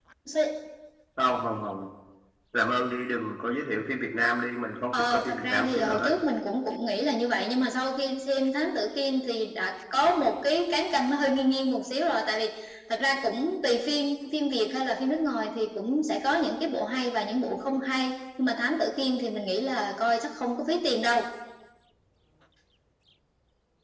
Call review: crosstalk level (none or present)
present